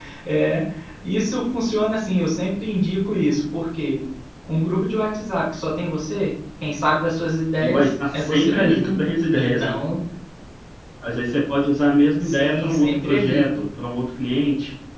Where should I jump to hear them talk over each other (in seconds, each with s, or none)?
7.6 s